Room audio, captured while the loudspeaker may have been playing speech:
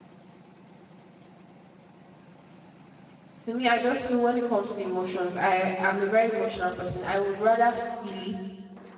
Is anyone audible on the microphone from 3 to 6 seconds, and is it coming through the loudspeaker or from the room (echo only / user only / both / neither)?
user only